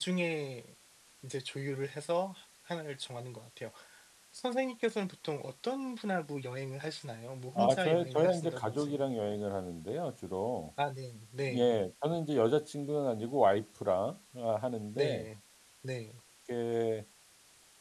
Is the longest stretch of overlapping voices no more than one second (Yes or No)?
No